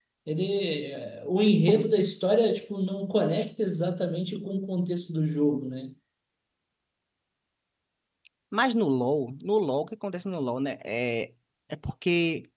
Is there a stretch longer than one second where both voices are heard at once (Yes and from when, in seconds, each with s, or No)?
No